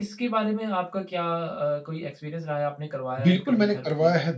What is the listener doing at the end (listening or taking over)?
taking over